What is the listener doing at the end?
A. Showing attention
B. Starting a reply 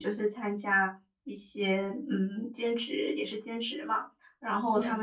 A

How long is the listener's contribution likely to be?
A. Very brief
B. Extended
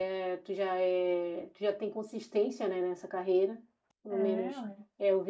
A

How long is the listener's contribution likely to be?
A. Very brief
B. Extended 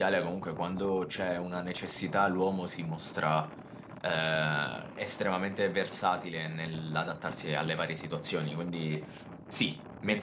A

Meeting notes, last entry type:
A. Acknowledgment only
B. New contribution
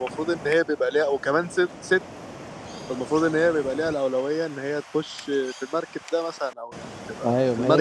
B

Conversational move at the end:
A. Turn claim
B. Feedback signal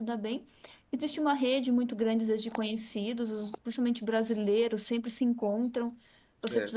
B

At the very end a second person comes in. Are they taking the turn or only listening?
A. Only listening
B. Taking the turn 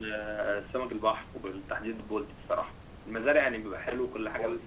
A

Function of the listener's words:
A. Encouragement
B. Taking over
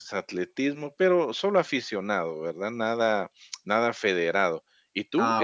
A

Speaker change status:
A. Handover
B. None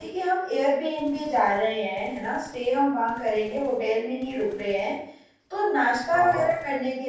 B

